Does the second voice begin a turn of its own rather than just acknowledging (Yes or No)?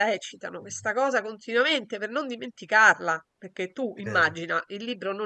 No